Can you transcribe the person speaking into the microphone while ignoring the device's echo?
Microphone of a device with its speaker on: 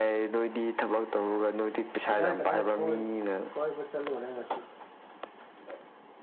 ꯀꯗꯥꯏ ꯀꯗꯥꯏ ꯀꯣꯏ ꯀꯣꯏꯕ ꯆꯜꯂꯨꯔꯦ ꯉ

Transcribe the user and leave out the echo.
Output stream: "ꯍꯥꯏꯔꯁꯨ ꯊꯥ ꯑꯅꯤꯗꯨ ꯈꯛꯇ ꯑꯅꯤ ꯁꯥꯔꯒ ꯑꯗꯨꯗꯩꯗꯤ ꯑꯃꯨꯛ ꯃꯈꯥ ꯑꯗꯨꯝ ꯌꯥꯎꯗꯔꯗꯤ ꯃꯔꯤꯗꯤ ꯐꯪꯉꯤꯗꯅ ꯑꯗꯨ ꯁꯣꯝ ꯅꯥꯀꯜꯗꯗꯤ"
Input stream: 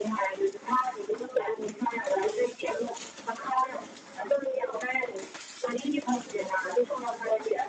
none

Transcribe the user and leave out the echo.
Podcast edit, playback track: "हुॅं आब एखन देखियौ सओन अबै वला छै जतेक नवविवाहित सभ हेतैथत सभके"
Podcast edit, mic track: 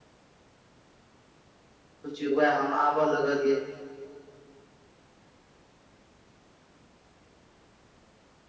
सोचिय वैहम आबऽ लगलिय।

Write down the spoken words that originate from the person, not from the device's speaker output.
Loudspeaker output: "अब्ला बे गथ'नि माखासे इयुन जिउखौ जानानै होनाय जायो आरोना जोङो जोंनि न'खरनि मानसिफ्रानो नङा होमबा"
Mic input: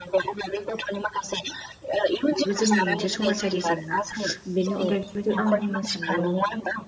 बेबो जोंनि मोनसे समाजारि जेंना बेनि अनगायै बेबायदि आं बुंनो सानबावदों।

